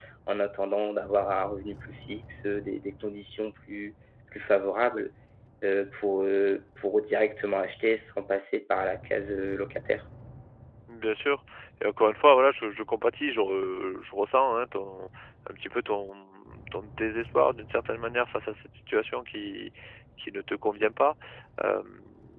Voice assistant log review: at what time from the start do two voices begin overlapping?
none

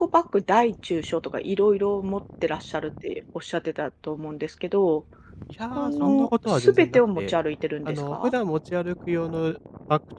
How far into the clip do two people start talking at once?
5.8 s

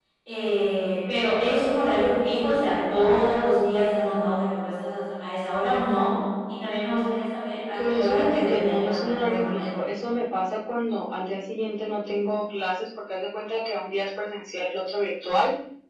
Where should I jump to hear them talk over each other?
7.8 s

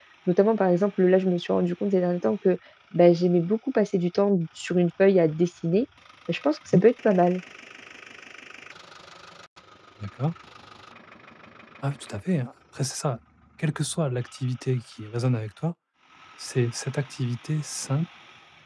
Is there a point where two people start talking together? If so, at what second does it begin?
none

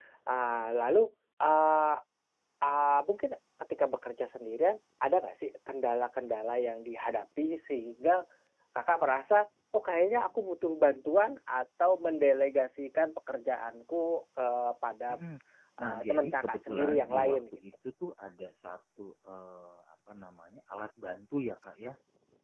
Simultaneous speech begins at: 15.8 s

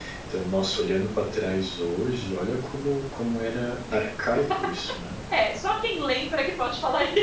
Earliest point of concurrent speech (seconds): none

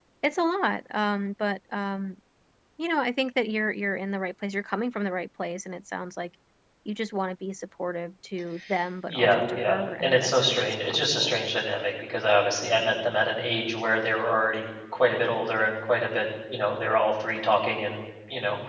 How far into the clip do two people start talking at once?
9.1 s

